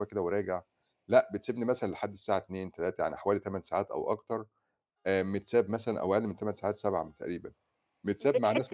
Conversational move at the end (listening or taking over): taking over